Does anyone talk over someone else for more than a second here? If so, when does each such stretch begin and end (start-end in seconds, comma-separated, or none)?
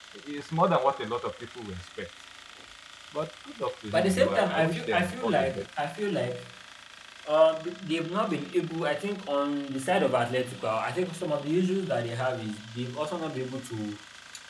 3.9-5.6